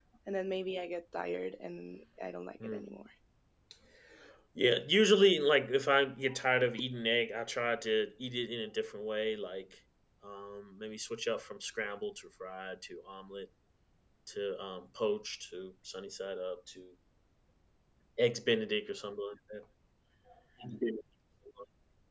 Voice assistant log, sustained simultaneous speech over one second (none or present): none